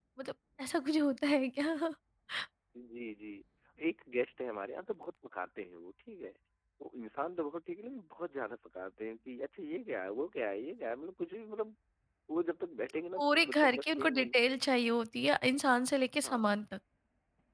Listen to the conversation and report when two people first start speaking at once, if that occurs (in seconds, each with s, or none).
12.9 s